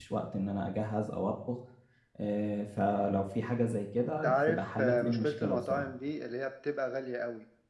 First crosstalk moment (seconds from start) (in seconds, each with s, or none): 4.2 s